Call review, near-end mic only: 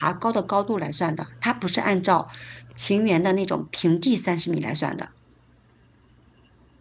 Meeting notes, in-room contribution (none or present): present